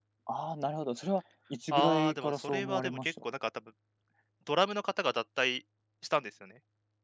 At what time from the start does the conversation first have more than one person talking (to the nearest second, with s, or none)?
2 s